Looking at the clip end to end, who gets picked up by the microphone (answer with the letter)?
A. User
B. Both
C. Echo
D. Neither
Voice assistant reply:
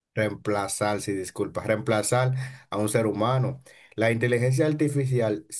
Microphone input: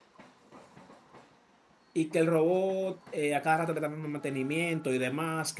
A